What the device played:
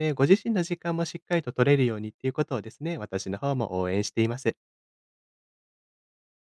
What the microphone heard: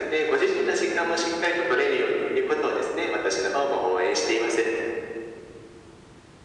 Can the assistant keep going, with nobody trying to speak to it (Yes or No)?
Yes